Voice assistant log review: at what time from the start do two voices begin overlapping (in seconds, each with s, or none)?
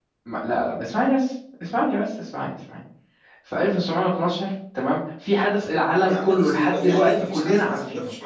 5.8 s